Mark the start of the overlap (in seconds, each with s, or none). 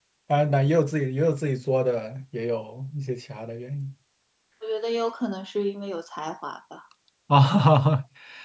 none